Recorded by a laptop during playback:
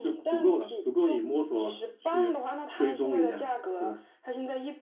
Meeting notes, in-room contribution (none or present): present